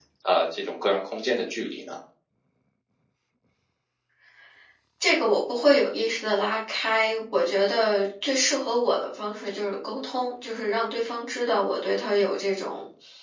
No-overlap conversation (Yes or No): Yes